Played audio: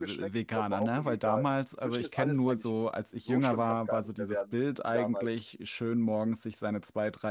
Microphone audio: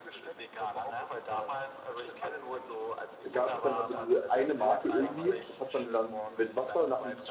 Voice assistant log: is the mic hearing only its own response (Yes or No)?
No